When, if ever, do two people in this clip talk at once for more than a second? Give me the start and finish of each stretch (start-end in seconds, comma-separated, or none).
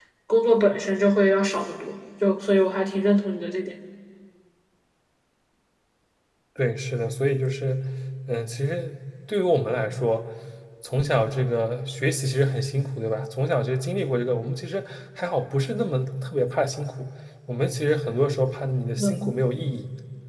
none